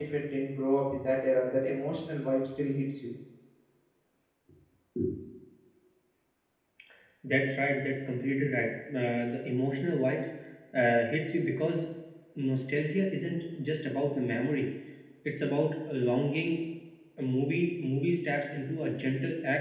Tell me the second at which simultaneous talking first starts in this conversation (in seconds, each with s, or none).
none